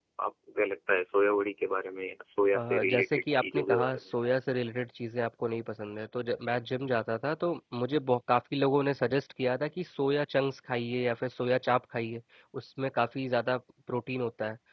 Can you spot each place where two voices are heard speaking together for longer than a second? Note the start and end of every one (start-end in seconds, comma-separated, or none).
2.5-4.0